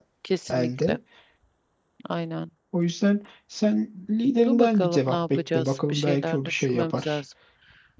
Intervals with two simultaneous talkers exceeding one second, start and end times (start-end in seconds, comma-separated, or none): 4.5-7.2